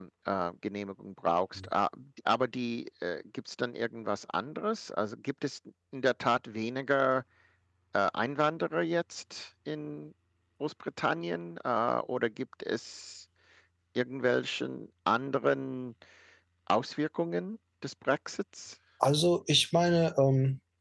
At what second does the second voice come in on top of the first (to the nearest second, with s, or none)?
none